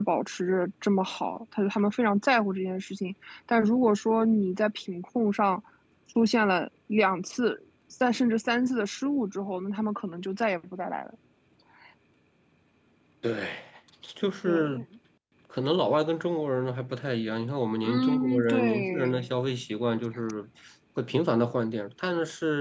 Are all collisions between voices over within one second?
No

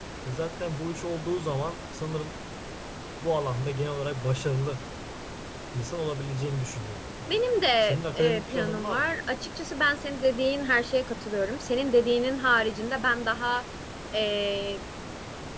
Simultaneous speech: Yes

